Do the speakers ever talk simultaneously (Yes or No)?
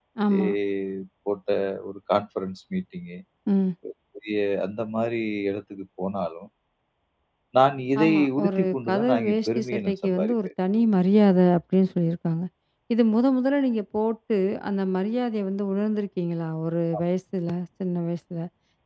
Yes